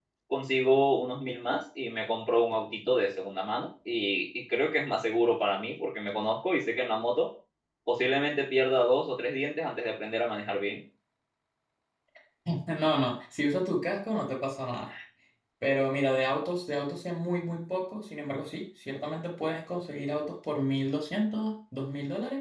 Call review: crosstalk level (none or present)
none